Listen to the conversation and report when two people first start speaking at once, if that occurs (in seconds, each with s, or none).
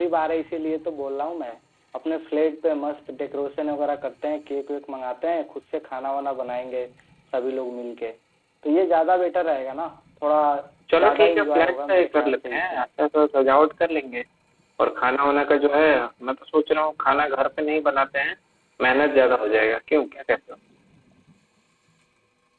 11.0 s